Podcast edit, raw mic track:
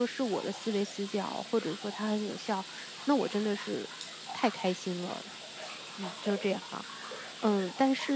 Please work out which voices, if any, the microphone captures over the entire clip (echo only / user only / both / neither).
user only